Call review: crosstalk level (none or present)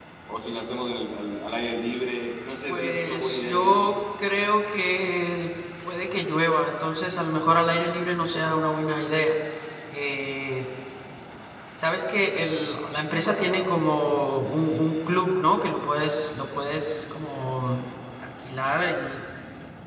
present